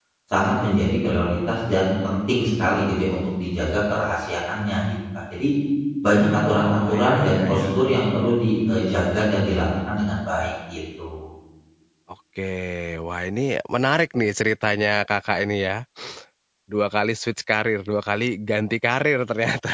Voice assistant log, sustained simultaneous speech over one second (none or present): present